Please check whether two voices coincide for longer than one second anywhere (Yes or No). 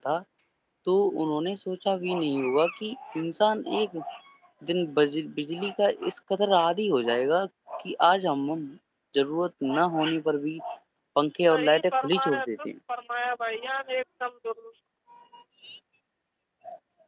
Yes